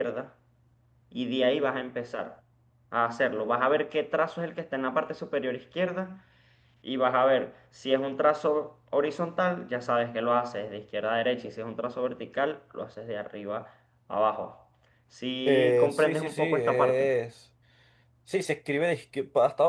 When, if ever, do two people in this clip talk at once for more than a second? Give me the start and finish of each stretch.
15.5-17.1

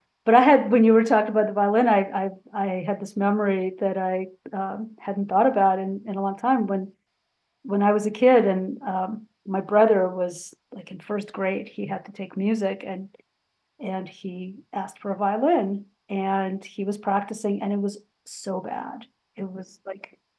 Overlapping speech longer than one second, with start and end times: none

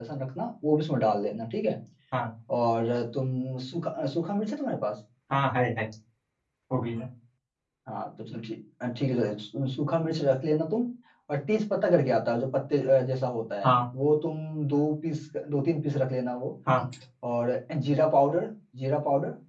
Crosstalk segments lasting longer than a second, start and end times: none

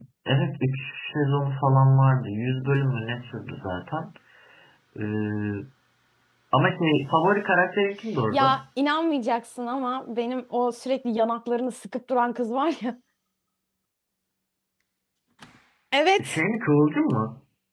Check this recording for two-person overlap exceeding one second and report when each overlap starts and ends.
none

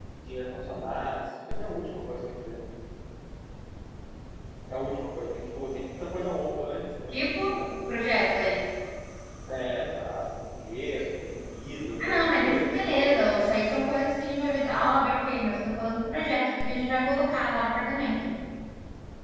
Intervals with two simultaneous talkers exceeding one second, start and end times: 12.0-13.3

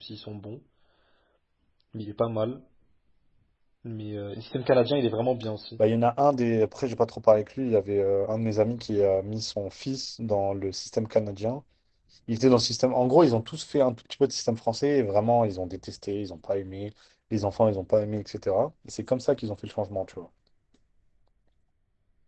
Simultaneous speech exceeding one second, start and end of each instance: none

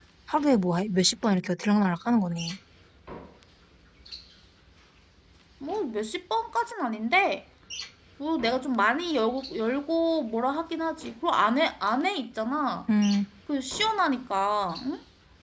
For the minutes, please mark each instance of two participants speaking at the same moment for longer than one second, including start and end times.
none

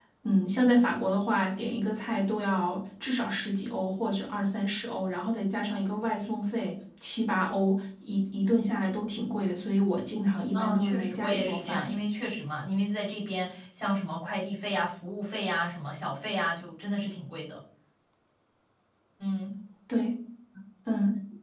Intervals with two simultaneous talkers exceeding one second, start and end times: 10.5-11.9

